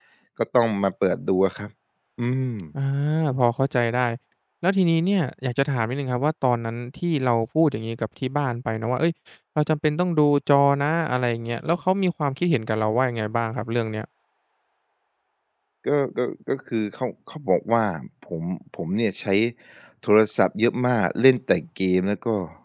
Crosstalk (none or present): none